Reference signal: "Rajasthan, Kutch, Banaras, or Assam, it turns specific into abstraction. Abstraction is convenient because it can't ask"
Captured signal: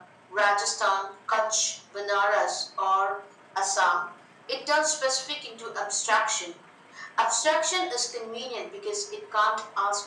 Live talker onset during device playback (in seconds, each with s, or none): none